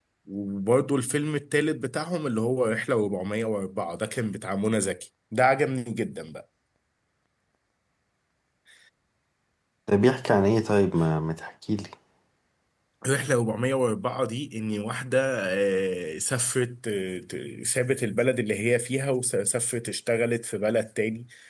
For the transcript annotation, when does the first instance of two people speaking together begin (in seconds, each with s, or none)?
none